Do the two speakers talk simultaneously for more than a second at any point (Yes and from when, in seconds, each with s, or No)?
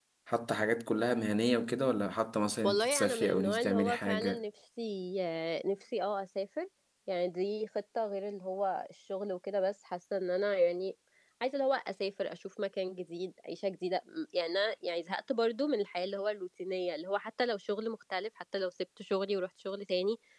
Yes, from 2.6 s